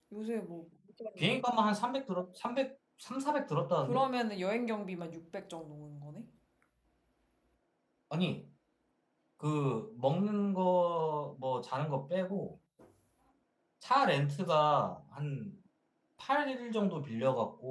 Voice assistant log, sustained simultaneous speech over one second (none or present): none